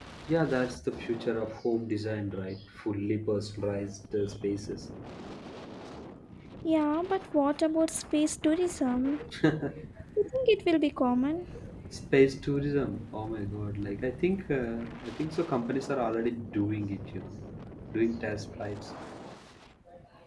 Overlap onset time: none

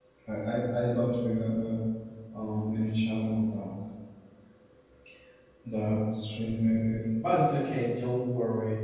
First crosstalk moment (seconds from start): none

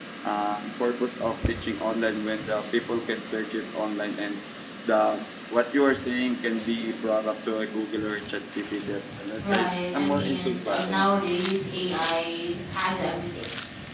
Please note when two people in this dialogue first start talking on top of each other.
9 s

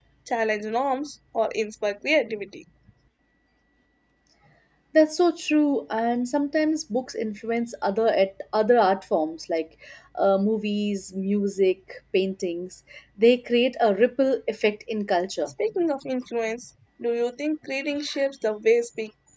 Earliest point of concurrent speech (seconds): none

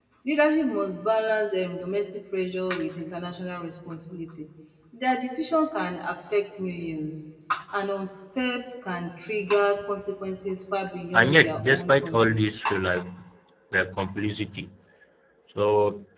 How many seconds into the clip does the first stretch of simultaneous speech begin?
11 s

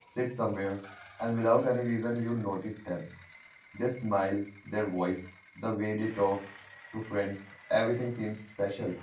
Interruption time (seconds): none

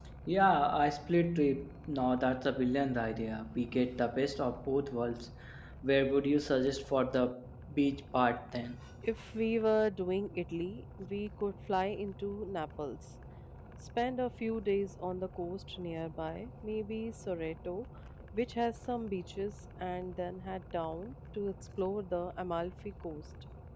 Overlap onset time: none

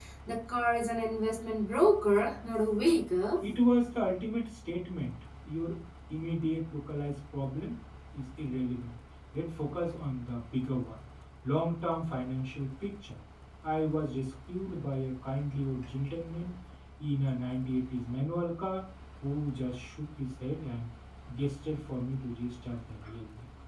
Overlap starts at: none

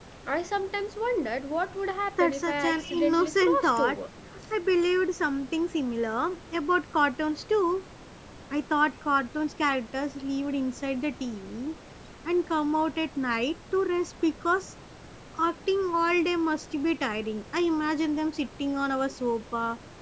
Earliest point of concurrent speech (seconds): 2 s

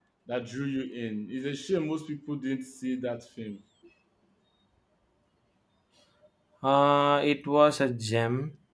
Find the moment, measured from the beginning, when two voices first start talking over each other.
none

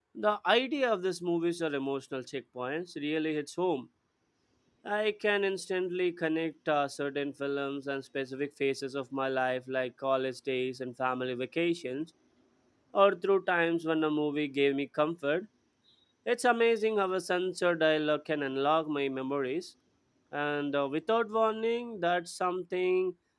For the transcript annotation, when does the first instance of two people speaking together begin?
none

